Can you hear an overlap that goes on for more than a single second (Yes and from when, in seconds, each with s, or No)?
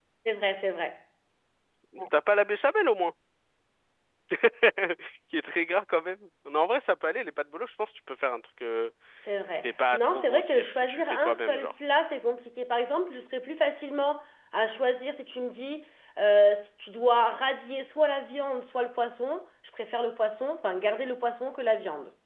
Yes, from 9.6 s